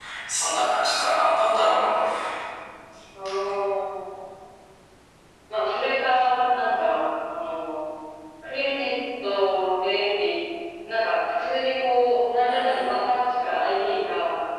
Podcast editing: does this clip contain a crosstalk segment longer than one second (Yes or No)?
No